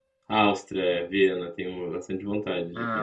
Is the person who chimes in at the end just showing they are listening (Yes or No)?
No